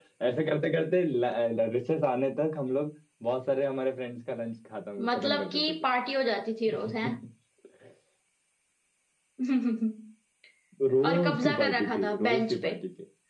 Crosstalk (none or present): present